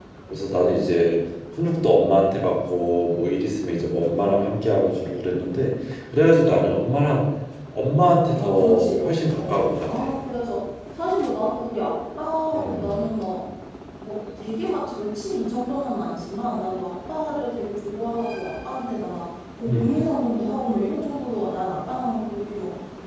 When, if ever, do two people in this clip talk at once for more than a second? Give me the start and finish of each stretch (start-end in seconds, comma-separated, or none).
8.3-10.1